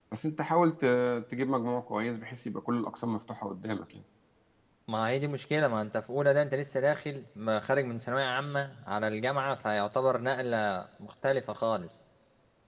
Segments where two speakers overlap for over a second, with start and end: none

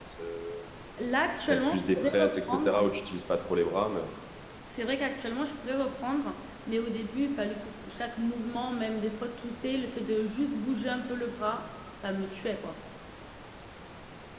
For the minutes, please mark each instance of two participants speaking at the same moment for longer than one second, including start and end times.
1.5-2.8

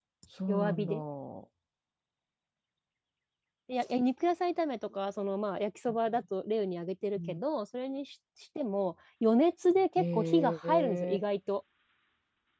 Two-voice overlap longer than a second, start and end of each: 10.0-11.2

